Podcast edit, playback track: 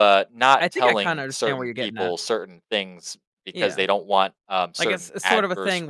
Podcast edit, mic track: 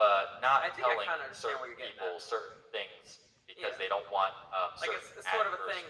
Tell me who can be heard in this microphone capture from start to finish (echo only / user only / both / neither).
echo only